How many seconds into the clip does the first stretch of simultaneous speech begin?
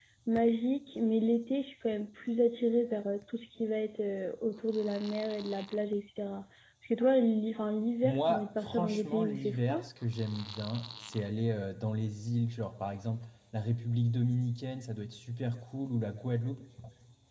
8.0 s

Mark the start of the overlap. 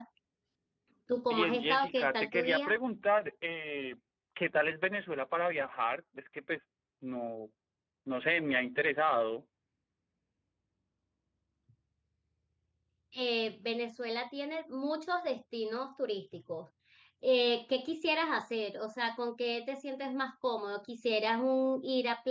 1.3 s

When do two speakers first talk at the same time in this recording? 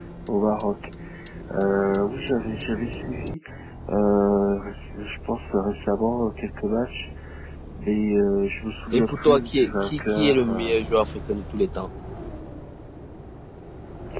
8.9 s

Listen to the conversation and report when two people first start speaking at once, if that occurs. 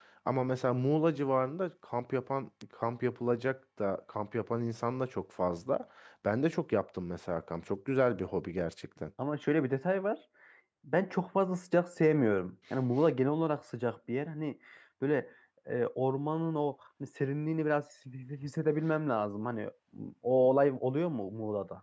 none

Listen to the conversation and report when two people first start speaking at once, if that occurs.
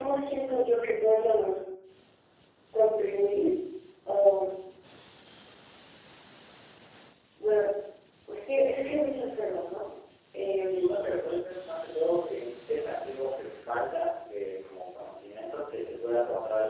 none

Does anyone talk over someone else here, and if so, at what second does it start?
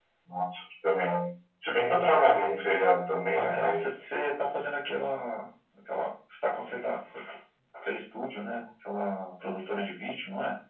3.3 s

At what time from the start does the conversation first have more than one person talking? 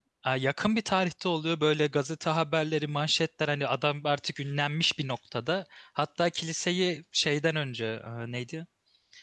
none

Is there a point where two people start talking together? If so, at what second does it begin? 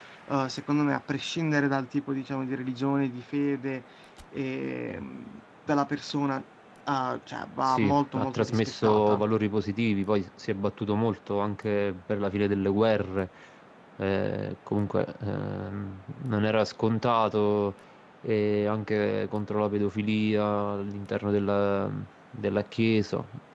7.7 s

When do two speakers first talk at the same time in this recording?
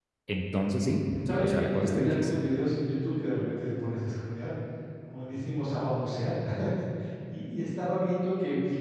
1.0 s

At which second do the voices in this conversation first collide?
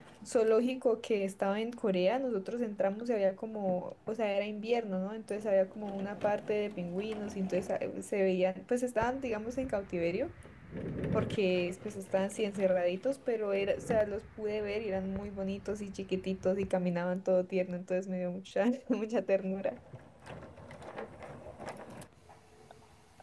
none

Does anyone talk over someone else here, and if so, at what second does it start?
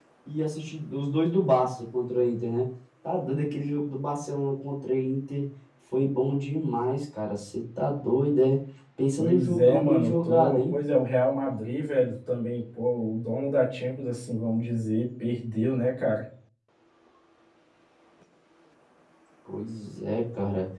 9.2 s

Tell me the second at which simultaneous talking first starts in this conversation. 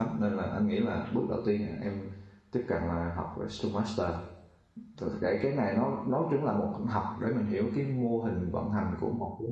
none

